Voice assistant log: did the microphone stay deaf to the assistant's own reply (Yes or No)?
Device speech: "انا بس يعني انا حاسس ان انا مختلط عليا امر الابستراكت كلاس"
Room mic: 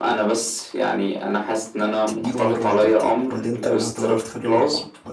No